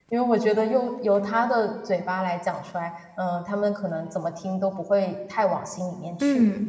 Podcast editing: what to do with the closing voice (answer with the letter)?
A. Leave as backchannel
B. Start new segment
B